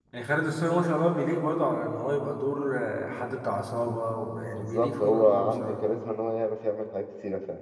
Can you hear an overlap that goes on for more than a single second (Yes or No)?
Yes